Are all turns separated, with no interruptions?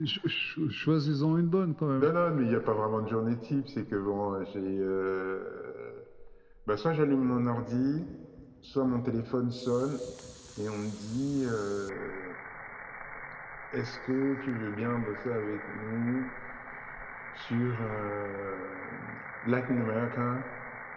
Yes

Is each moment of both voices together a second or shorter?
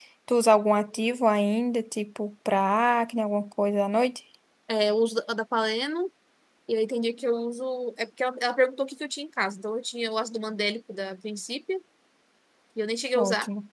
Yes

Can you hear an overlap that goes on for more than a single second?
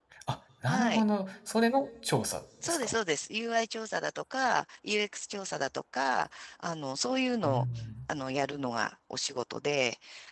No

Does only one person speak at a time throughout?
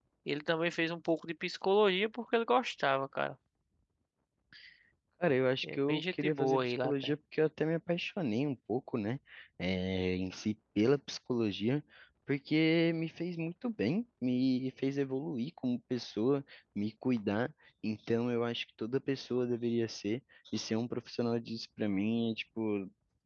No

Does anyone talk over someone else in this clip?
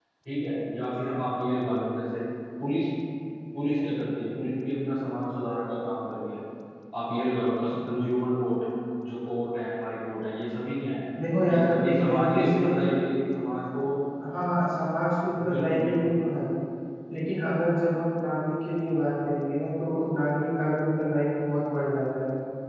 Yes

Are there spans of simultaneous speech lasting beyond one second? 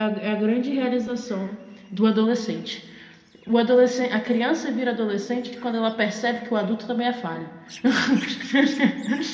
No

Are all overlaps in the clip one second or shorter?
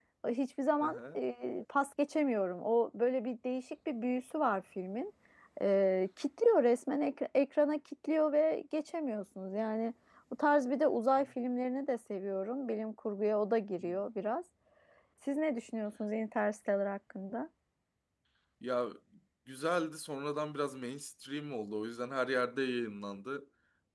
Yes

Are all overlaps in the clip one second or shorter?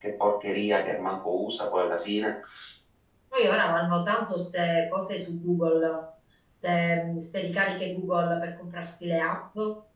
Yes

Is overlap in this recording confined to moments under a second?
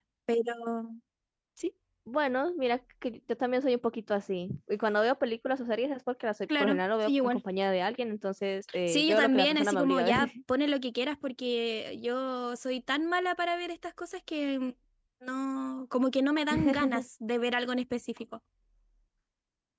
No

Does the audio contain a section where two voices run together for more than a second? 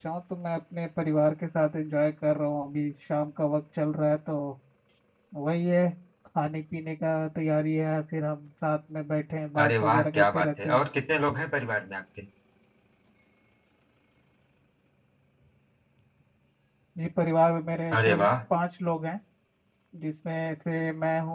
Yes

